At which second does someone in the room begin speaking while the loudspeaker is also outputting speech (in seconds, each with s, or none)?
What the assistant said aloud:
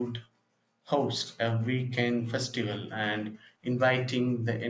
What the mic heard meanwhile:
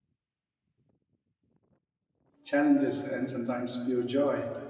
2.4 s